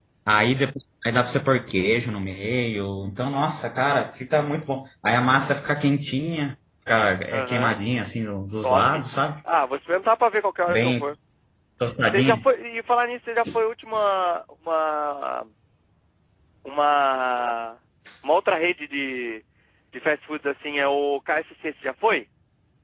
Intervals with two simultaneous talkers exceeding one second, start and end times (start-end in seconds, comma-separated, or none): none